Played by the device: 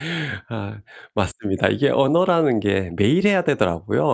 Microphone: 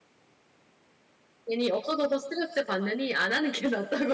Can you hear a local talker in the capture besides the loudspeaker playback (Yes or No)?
Yes